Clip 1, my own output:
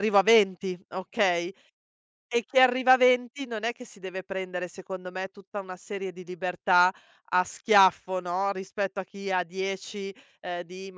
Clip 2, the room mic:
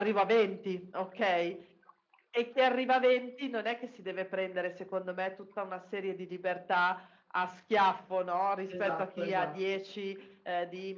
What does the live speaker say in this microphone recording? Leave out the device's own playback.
esatto, esatto.

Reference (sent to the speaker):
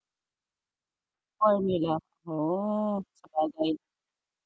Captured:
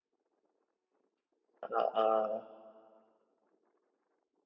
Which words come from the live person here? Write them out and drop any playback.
Oo.

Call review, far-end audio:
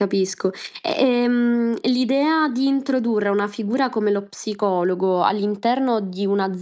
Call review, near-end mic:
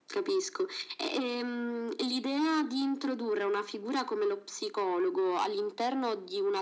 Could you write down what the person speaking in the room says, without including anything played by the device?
none

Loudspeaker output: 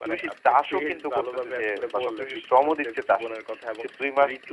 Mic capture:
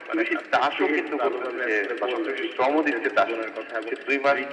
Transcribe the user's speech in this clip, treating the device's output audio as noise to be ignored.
none

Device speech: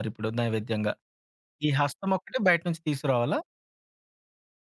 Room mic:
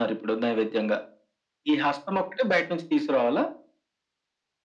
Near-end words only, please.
none

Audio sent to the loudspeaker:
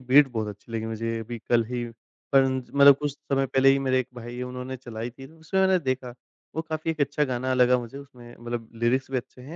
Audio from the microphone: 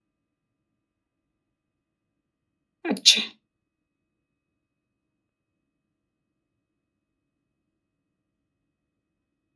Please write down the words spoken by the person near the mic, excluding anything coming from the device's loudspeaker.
अच्छा।

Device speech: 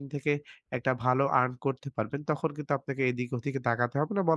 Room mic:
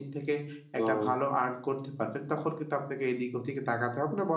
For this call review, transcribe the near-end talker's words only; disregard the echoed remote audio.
ও!

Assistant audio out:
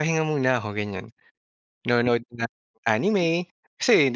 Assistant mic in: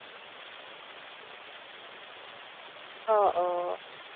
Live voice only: Oo.

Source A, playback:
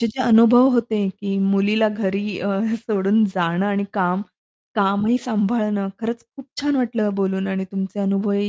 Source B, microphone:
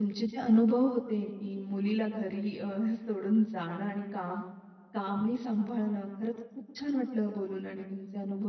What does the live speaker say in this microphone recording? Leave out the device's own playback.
none

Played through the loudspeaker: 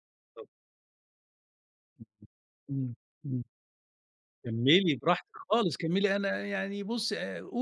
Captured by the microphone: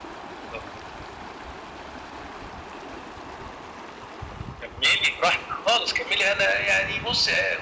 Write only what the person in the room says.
none

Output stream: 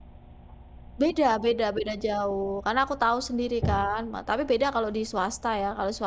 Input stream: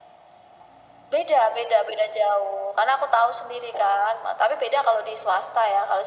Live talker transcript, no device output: none

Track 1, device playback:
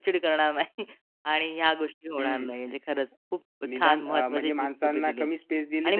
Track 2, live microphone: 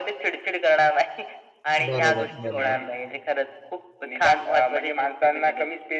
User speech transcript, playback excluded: बरोबर, बरोबर.

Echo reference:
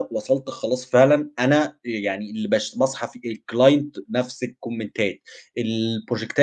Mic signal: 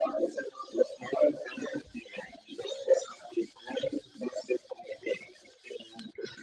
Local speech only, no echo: none

